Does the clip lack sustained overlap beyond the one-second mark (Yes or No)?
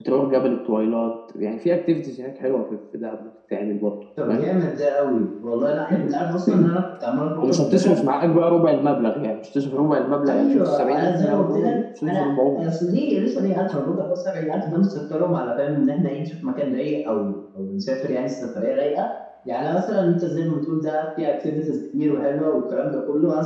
No